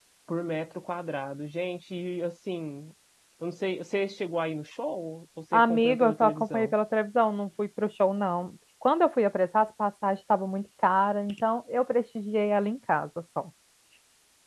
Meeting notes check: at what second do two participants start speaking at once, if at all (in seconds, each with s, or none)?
5.5 s